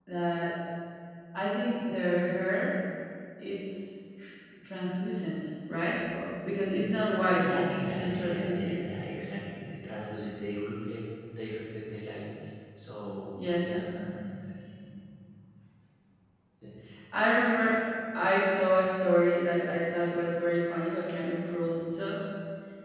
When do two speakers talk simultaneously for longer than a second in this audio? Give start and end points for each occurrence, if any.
7.4-8.8

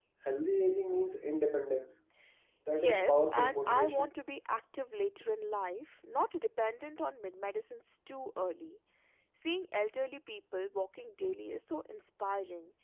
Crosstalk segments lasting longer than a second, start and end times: 2.7-4.1

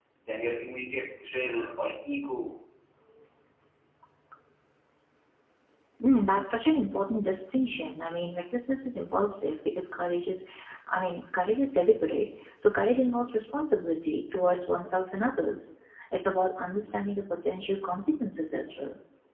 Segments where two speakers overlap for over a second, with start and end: none

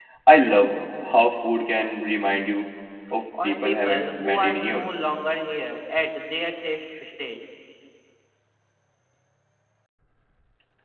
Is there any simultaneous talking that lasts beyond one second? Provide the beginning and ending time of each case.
3.4-4.9

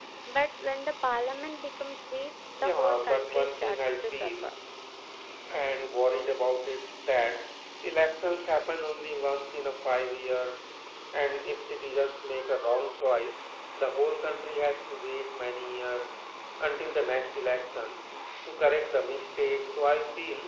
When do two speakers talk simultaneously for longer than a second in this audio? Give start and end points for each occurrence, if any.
2.6-4.5

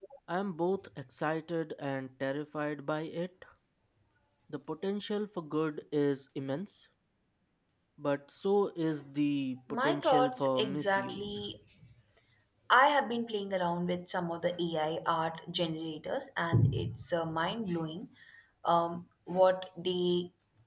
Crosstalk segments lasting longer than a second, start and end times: 9.8-11.2

